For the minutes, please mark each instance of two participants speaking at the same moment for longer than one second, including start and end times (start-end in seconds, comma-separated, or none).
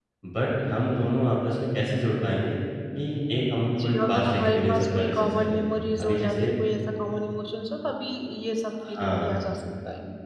3.8-5.6